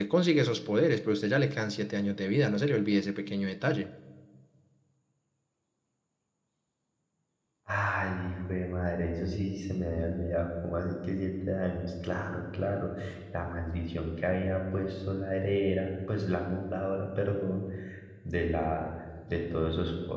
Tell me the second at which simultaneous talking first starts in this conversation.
none

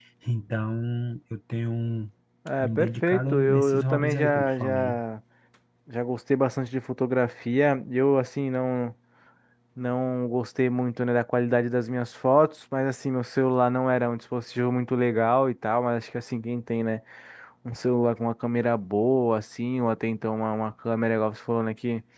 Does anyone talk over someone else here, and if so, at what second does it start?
2.6 s

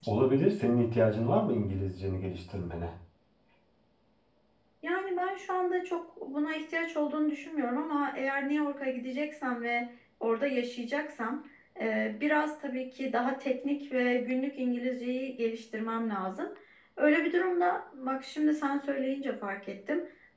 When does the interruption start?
none

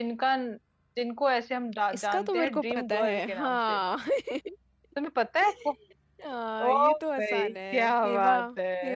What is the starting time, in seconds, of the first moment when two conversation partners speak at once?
1.9 s

